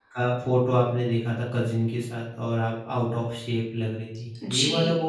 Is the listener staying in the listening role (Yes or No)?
No